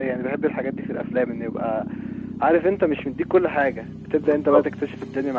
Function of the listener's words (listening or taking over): listening